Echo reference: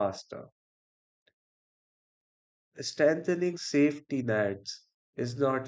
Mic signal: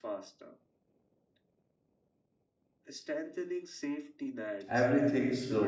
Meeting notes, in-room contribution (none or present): present